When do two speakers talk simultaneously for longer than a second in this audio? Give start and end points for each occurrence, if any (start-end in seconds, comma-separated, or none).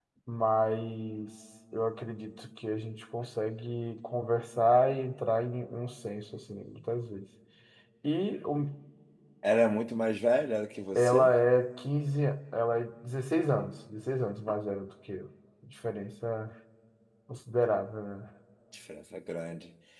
none